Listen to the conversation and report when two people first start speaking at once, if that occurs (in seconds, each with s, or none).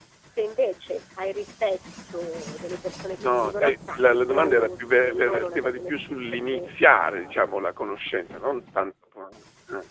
3.2 s